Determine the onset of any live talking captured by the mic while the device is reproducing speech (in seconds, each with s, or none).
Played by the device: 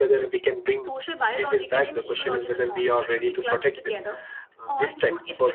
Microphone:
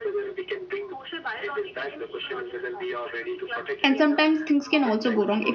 3.8 s